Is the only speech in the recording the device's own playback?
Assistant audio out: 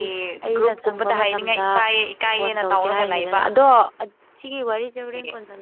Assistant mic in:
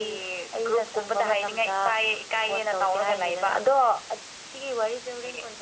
Yes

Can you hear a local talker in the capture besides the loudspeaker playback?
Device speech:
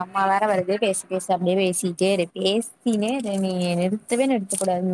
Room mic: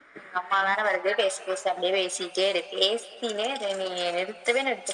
No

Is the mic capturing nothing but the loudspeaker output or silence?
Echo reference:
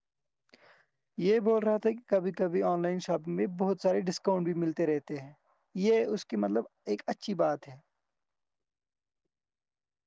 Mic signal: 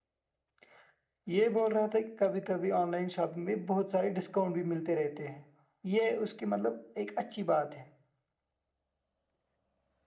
Yes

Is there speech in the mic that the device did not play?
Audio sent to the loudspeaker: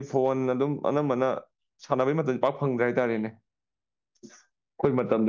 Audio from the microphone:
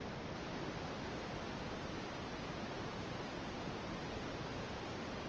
No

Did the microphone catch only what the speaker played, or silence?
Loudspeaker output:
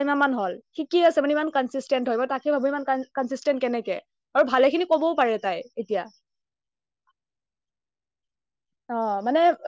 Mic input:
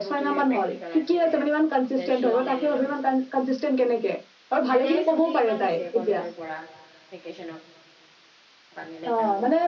No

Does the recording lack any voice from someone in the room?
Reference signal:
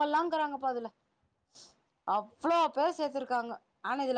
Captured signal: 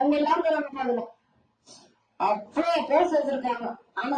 Yes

